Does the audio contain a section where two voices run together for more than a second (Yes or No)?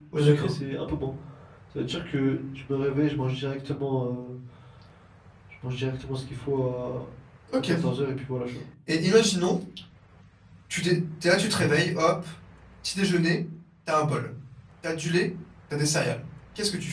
No